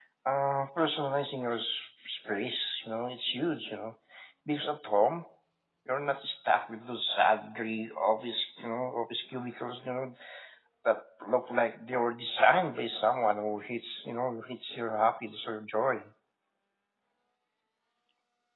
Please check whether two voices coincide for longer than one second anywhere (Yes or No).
No